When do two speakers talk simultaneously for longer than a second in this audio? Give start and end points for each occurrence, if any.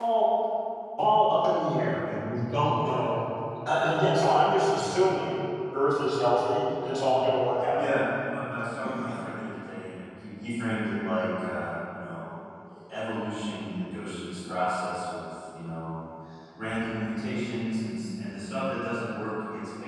none

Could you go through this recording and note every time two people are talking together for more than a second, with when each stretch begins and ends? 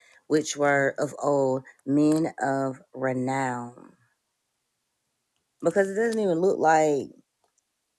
none

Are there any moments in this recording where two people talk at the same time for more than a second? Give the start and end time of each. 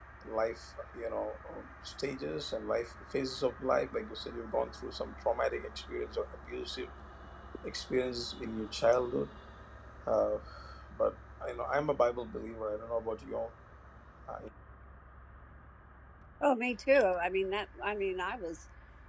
none

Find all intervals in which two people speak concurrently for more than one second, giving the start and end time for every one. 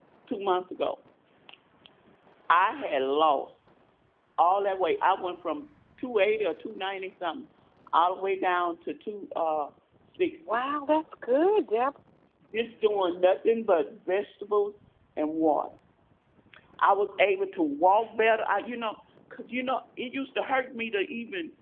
none

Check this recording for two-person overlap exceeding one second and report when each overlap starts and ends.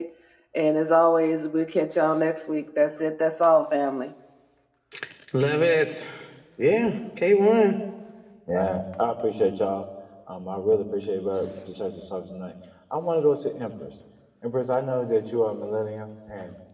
none

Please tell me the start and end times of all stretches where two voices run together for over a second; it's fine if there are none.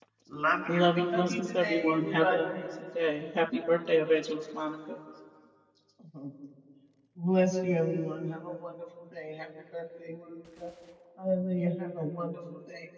0.7-2.6

